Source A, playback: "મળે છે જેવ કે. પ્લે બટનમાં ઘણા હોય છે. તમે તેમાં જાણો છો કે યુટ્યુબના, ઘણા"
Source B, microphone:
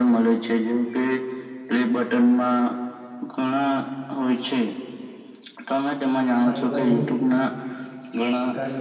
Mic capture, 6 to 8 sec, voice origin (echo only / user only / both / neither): both